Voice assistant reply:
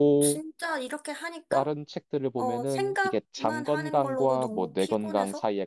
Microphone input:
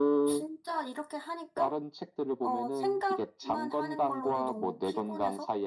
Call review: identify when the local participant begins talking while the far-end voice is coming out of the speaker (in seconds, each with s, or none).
none